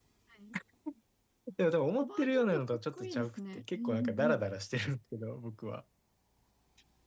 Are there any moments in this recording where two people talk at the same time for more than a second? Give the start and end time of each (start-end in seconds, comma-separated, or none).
2.0-4.4